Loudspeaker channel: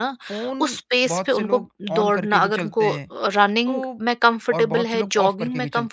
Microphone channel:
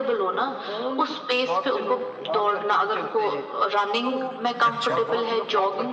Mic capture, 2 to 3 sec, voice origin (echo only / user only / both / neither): echo only